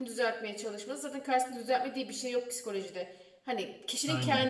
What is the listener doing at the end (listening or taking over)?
listening